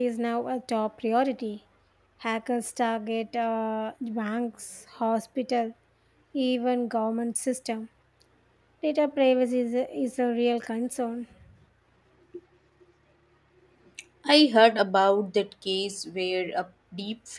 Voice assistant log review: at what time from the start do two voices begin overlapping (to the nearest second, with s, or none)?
none